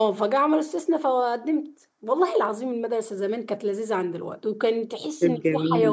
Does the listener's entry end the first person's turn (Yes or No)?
No